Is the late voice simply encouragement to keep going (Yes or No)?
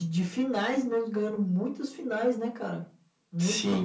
No